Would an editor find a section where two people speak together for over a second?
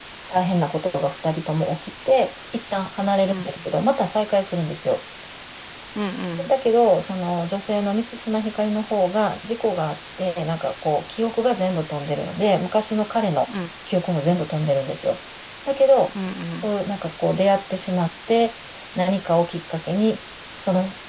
No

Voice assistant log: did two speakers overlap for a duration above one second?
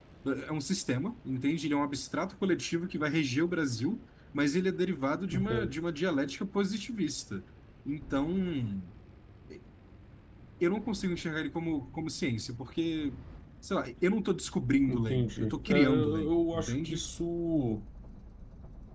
Yes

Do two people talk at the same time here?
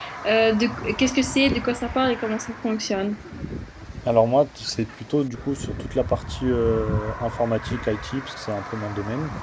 No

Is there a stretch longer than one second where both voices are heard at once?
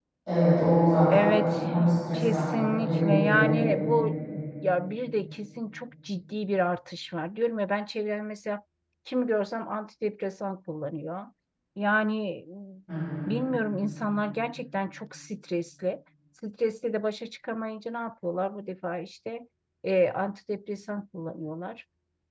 Yes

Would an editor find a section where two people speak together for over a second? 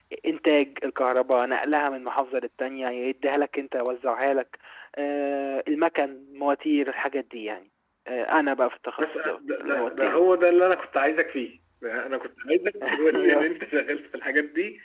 Yes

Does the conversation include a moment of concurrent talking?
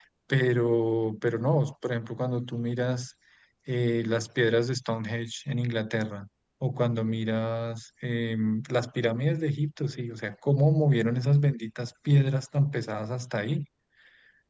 No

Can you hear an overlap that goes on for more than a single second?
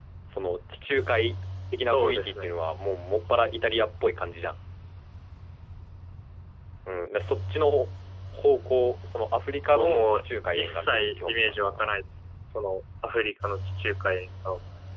Yes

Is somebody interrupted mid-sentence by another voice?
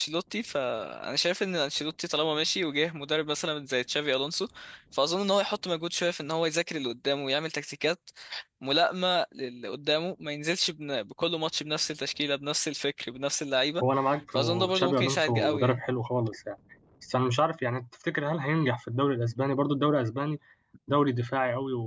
Yes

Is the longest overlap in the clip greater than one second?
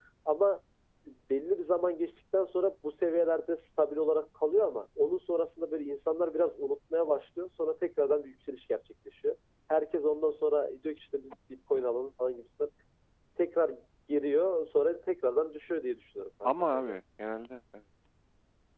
No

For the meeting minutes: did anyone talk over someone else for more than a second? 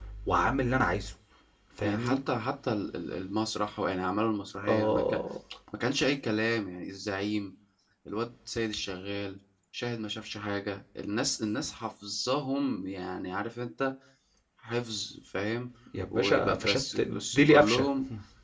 Yes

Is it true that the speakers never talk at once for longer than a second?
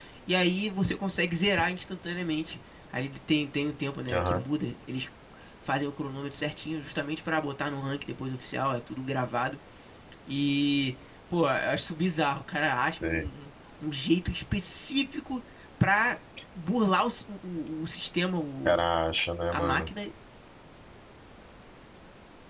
Yes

